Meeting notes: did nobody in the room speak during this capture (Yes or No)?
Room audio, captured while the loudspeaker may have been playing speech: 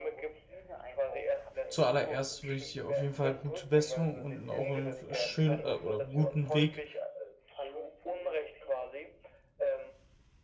No